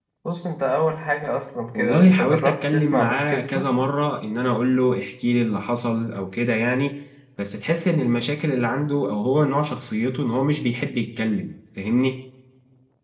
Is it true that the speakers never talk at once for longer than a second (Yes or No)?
No